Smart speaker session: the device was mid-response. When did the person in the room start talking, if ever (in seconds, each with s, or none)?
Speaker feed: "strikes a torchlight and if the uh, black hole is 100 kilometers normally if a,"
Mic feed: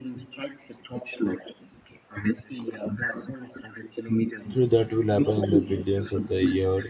4.5 s